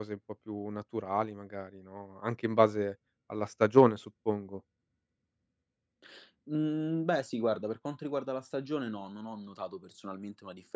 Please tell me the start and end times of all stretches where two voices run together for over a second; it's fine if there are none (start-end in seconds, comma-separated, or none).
none